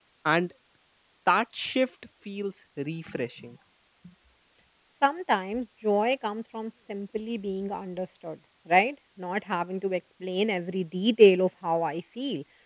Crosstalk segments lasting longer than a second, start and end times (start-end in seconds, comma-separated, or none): none